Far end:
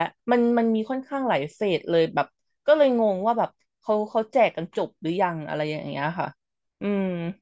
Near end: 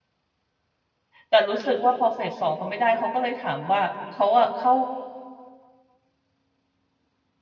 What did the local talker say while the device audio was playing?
แต่รู้สึกว่าพอเฟสสองเขาไม่ได้เขาก็เลยถามว่าเขาอะเข้า

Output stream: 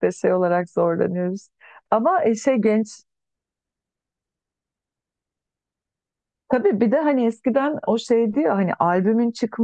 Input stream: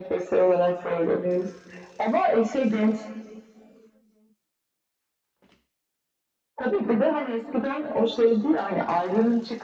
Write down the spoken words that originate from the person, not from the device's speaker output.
none

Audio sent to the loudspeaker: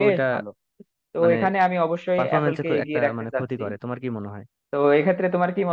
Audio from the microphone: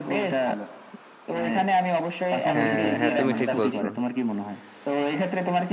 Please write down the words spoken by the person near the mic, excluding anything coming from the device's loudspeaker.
হ্যাঁ হ্যাঁ তুমি ঠিক বলছো

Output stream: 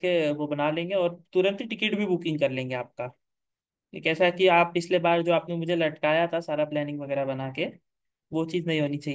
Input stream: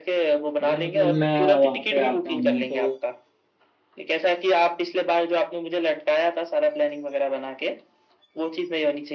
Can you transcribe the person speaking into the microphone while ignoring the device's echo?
अगर मतलब मैं वहां पे आता हूँ तो

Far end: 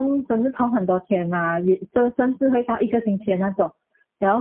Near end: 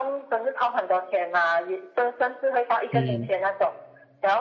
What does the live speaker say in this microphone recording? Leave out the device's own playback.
嗯

